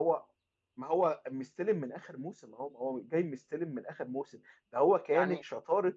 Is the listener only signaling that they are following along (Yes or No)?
Yes